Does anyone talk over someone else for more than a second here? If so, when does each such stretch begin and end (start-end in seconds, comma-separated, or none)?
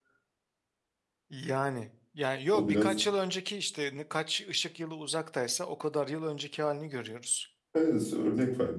none